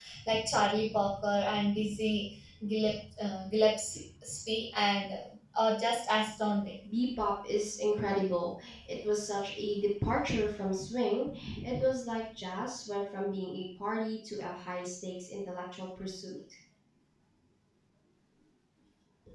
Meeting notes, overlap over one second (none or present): none